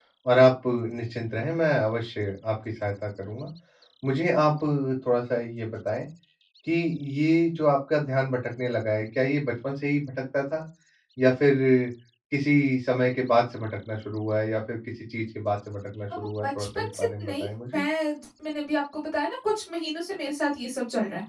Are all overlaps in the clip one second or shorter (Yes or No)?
No